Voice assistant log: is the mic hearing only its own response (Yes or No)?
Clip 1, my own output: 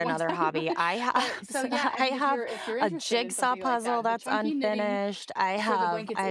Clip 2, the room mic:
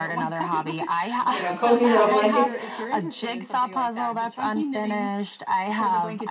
No